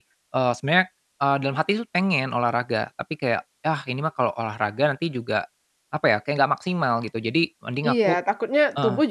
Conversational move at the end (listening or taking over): taking over